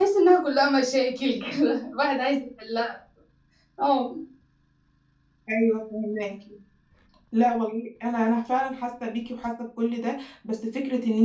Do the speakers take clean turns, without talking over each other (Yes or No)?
Yes